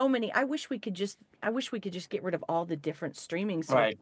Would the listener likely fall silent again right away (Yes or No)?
No